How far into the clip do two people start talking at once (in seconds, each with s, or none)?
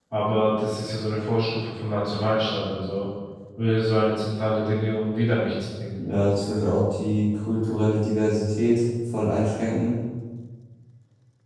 none